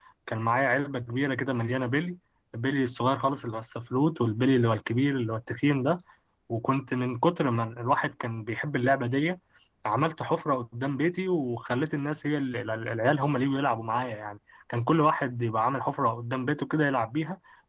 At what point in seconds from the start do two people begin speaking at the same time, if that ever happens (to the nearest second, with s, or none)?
none